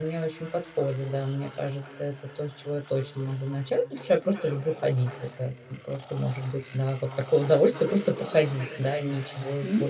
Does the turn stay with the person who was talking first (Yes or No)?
No